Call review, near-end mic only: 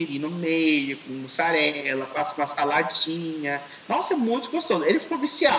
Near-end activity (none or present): none